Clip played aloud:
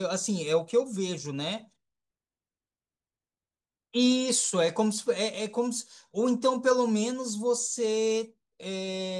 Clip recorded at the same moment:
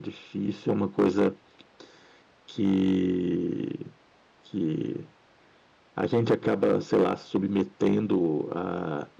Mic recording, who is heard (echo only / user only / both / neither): user only